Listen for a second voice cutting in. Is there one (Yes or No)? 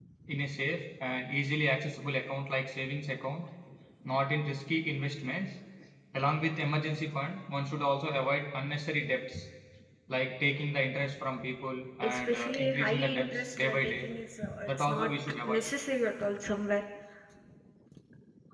Yes